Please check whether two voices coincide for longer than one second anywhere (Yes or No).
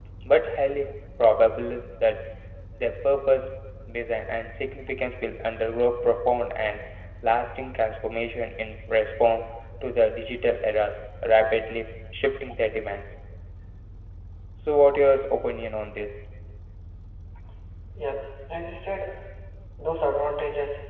No